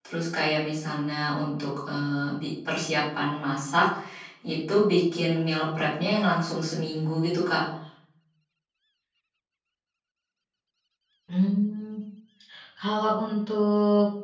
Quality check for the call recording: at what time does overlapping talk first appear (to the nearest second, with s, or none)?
none